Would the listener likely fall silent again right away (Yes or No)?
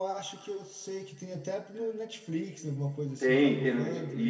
No